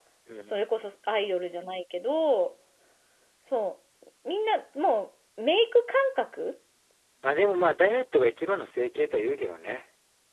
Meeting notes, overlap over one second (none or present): none